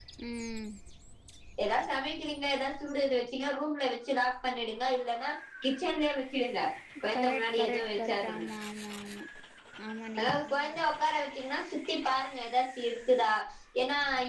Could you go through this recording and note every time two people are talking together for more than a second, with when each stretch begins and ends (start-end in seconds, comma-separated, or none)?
7.1-8.4